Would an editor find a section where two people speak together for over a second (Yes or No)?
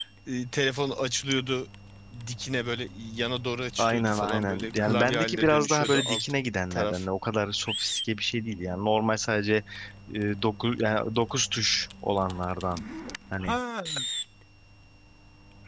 Yes